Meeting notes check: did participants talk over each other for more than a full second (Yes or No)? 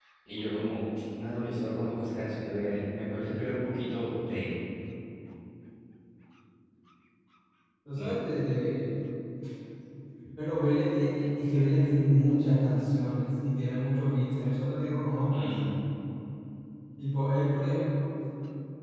No